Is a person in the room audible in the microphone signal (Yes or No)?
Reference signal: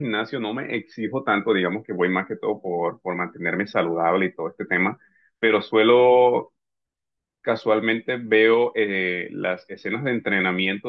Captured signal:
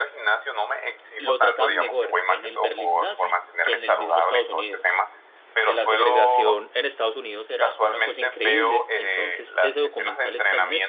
Yes